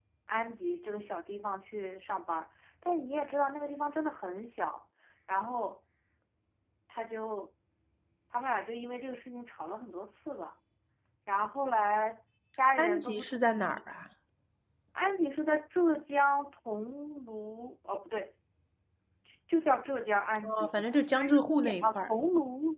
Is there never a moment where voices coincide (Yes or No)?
No